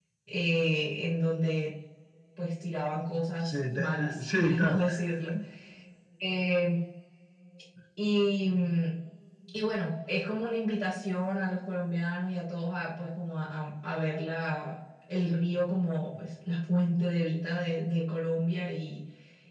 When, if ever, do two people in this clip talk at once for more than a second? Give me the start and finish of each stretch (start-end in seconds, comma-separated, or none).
3.4-4.8